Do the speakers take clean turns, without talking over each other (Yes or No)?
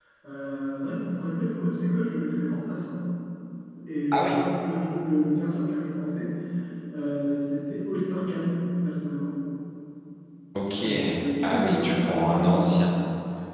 No